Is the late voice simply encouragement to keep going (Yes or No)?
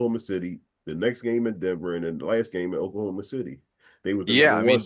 No